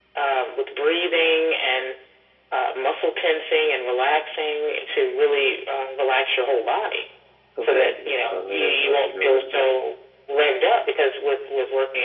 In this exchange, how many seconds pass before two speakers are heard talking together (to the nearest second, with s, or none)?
8 s